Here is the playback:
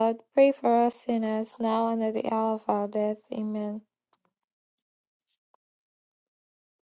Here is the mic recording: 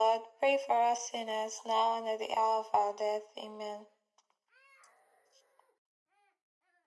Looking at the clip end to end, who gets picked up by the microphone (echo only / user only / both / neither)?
echo only